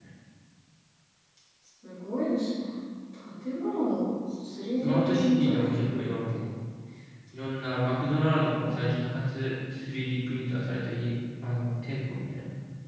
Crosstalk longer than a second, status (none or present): present